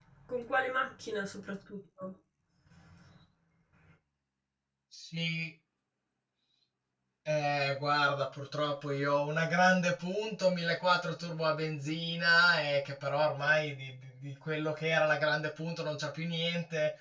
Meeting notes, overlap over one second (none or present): none